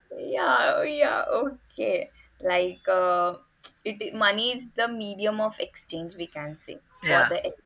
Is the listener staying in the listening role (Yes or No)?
Yes